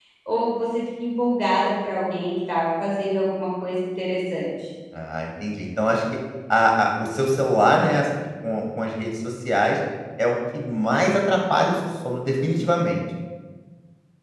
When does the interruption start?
none

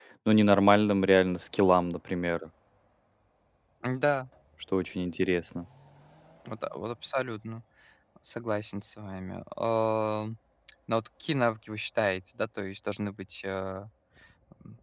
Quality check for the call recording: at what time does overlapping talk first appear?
none

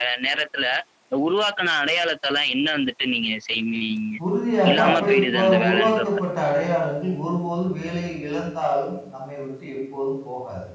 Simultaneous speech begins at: 4.7 s

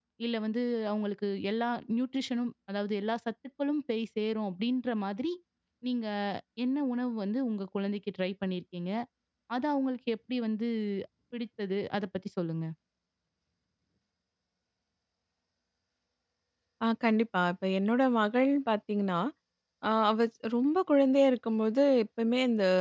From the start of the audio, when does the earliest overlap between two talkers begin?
none

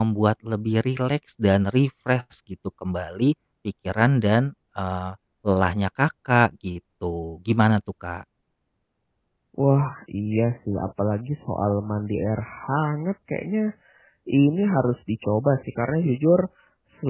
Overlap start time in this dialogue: none

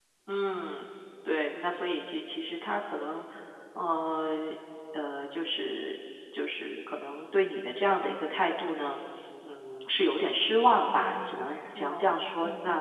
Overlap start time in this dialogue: 10.9 s

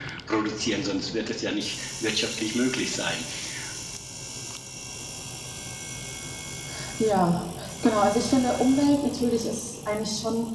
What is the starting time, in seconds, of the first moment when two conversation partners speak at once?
none

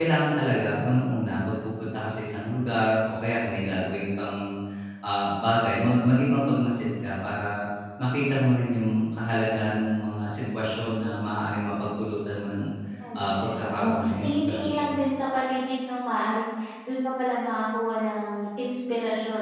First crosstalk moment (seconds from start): 13.2 s

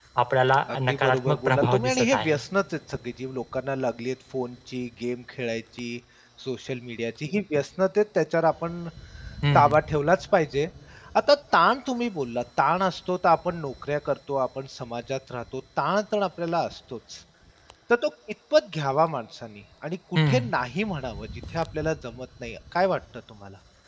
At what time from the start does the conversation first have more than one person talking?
0.7 s

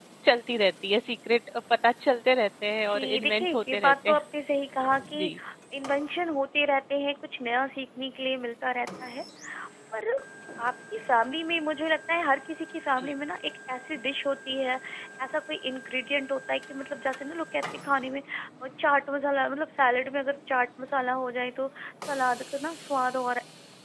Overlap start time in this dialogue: 2.9 s

